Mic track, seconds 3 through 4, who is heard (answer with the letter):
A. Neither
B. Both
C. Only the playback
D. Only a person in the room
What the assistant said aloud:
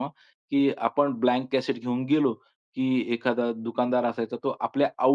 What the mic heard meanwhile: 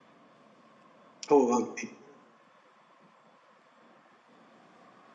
A